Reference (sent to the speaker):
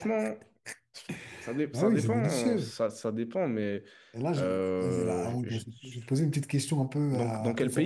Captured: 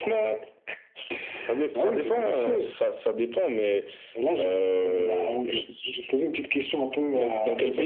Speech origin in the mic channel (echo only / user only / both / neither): echo only